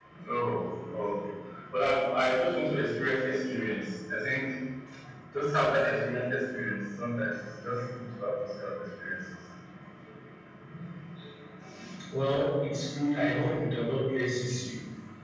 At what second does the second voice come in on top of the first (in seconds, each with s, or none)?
none